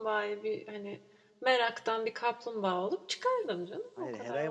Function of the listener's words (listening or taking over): taking over